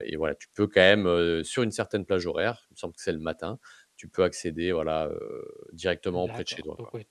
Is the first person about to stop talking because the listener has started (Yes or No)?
Yes